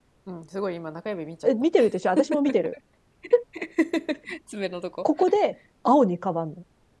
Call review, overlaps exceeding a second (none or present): none